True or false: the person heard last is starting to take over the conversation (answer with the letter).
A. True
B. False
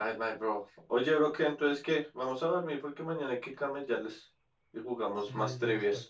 A